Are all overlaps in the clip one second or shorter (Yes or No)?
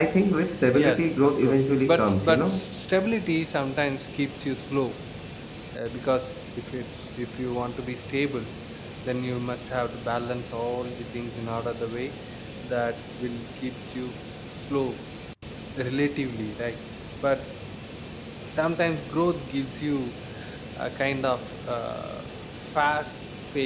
No